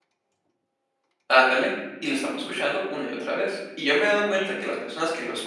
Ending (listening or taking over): listening